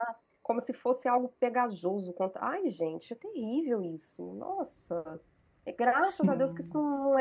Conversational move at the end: listening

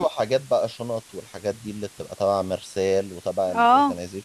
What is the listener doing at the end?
listening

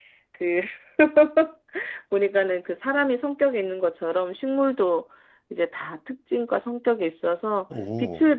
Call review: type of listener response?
listening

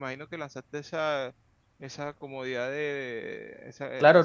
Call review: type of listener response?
taking over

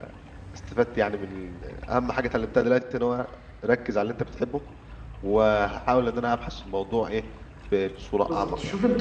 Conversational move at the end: taking over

